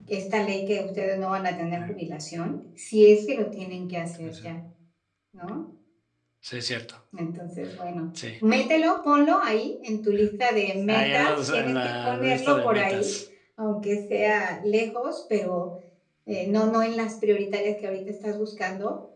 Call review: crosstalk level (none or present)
present